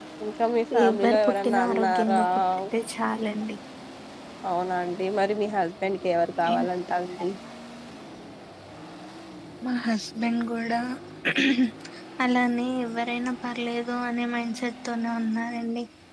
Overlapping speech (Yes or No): Yes